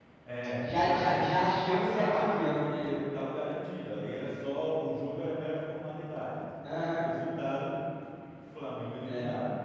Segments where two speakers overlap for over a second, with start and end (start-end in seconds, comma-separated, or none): 0.6-2.6